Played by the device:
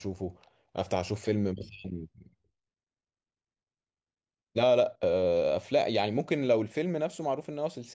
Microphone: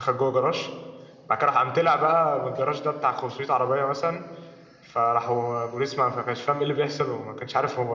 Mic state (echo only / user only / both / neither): user only